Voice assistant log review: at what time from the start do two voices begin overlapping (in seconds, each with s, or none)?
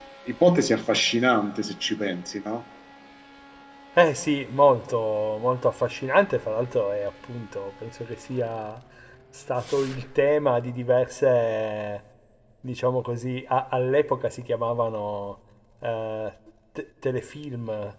none